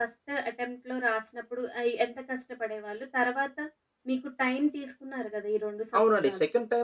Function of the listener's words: taking over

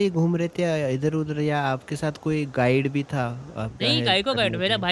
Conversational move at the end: taking over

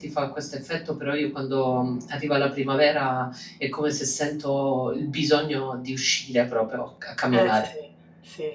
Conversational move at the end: taking over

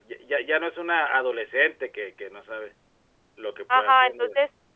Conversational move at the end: taking over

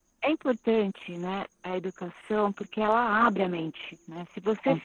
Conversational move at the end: listening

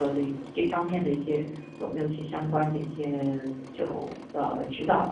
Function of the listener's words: taking over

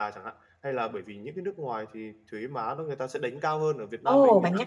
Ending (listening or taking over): taking over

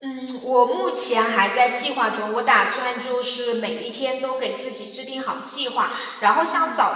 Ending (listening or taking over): listening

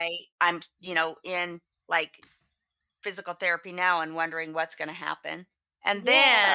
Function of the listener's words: listening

